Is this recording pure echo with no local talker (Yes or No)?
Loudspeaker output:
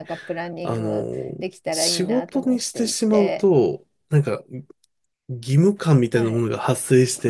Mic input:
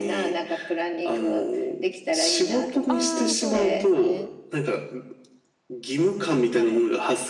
No